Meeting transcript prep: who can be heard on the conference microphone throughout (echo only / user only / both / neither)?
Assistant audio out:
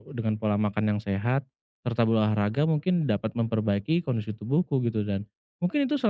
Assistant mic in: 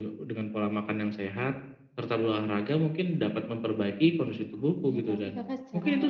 both